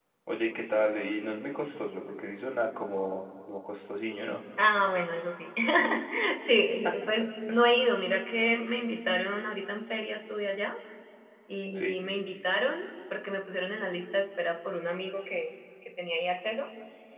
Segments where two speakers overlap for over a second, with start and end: none

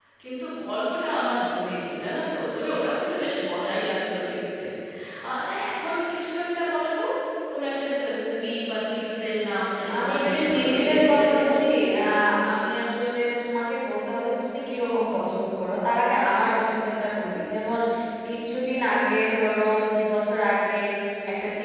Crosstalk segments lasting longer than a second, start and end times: 10.0-11.4

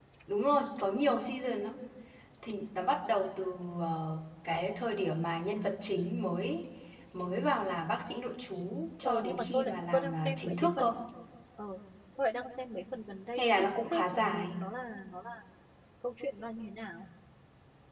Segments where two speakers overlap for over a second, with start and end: 9.0-10.9, 13.4-14.6

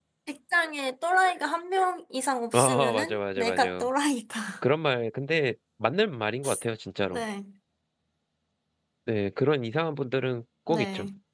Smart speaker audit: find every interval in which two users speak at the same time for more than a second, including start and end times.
2.5-3.9

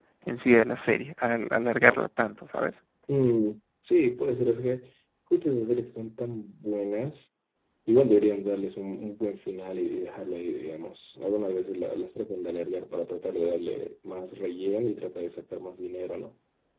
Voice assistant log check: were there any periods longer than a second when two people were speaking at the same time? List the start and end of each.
none

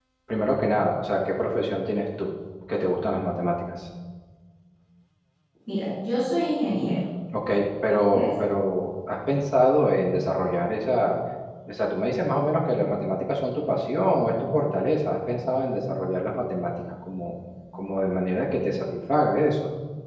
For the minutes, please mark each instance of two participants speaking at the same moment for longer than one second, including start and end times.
none

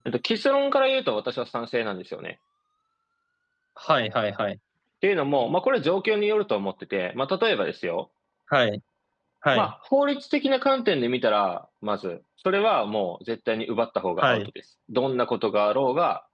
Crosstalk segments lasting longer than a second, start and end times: none

